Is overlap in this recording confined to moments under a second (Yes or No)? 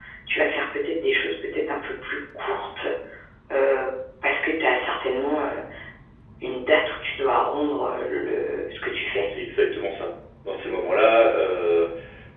Yes